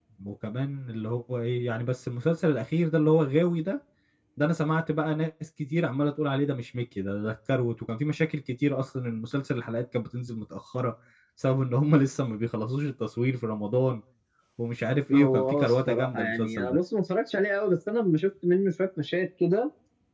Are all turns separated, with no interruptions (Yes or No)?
No